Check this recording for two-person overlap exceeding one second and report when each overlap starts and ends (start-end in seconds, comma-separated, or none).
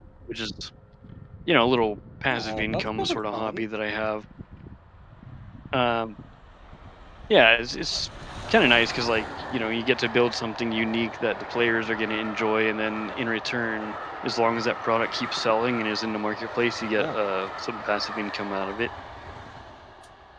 2.3-3.6